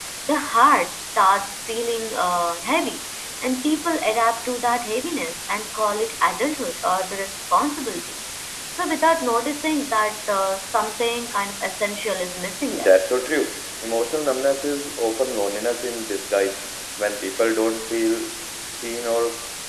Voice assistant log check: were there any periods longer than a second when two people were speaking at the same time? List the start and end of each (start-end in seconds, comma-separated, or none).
none